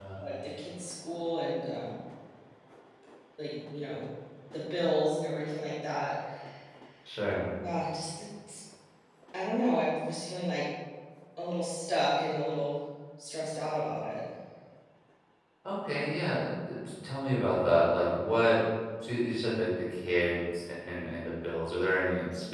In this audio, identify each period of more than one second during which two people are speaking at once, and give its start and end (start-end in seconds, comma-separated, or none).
none